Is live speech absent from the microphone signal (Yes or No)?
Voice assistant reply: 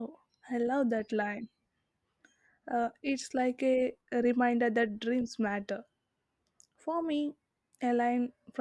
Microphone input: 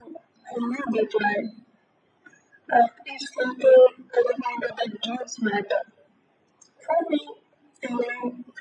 Yes